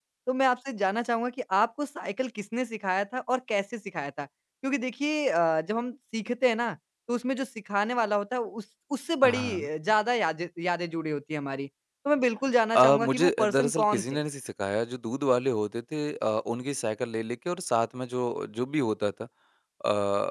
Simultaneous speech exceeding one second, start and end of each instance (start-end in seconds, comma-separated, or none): 12.7-14.2